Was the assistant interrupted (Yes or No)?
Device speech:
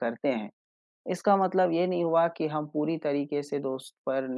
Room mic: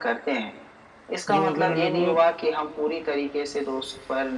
Yes